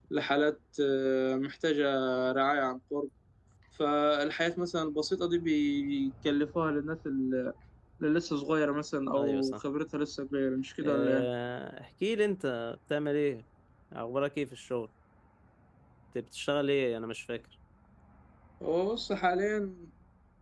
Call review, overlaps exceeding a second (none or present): none